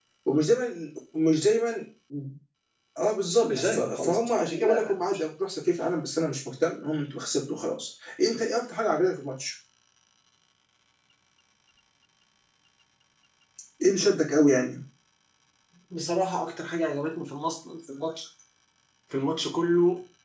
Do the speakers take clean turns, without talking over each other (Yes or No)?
No